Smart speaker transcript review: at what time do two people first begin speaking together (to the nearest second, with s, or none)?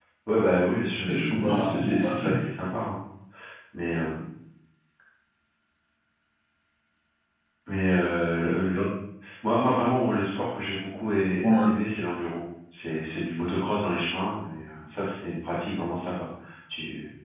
1 s